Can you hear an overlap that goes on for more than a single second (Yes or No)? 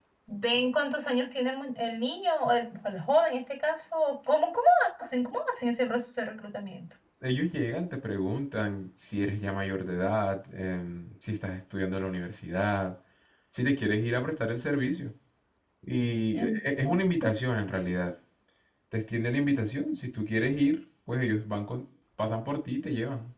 No